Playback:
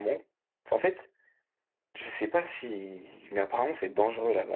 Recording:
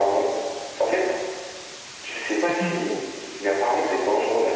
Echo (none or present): present